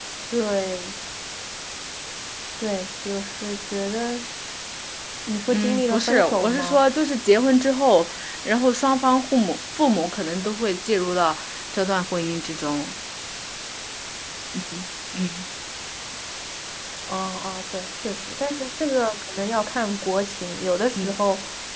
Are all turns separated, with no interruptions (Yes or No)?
No